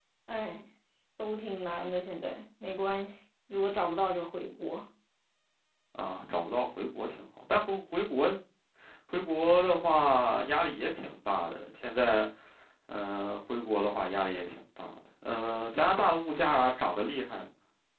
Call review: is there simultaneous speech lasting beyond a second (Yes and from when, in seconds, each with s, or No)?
No